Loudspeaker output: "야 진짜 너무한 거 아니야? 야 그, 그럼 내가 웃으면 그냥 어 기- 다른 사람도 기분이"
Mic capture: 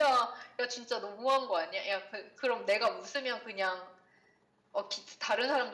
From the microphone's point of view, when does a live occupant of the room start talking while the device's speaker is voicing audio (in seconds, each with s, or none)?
none